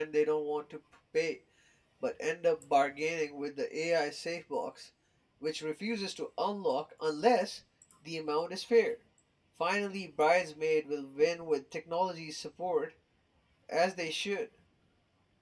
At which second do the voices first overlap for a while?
none

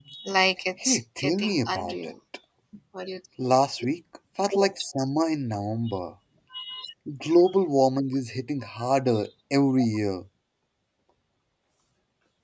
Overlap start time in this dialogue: 1 s

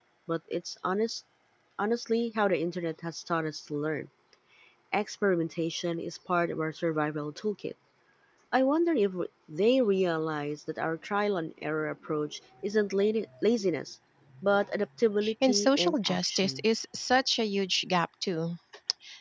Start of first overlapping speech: 15 s

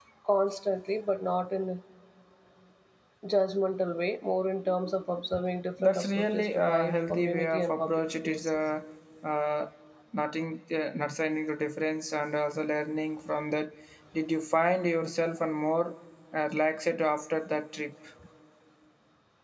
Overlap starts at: 6 s

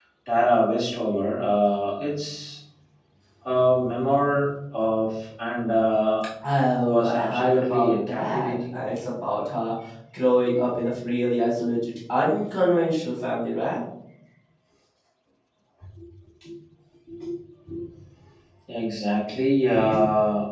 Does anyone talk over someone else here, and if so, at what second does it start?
7 s

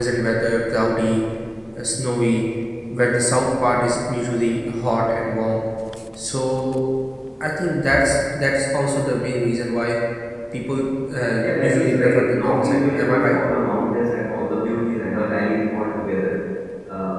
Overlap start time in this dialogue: 11 s

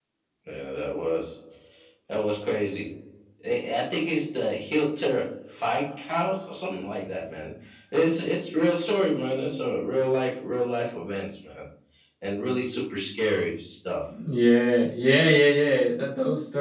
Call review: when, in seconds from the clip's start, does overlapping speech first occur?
none

